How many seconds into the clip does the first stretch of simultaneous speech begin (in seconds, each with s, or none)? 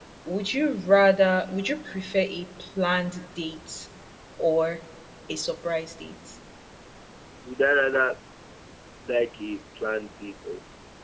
none